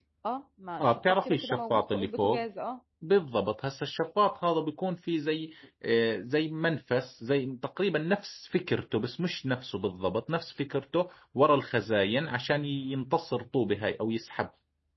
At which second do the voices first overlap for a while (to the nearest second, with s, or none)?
1 s